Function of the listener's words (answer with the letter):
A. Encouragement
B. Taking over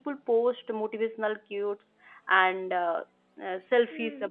A